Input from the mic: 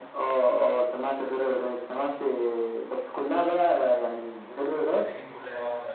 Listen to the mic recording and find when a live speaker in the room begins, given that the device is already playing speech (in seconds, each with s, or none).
4.9 s